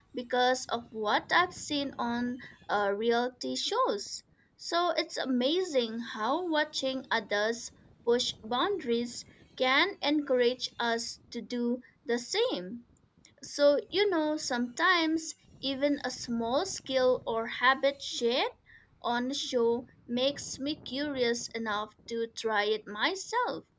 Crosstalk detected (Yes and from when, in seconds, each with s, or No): No